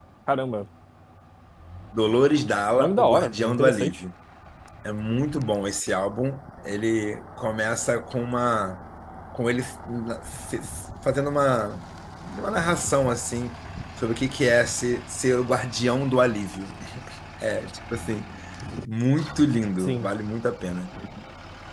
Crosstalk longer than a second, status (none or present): present